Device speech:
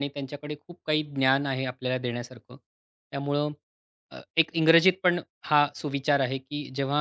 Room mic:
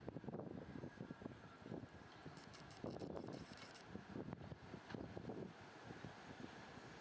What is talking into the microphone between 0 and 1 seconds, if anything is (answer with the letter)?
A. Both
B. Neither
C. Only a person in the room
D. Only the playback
B